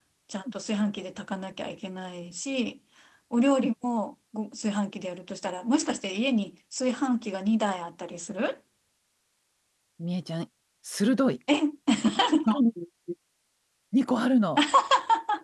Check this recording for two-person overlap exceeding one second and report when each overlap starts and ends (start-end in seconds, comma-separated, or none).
none